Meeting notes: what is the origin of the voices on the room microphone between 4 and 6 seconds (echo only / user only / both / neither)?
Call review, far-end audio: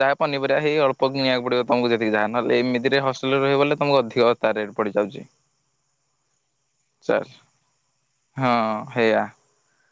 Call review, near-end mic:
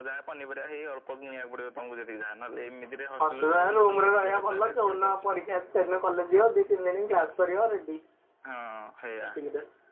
both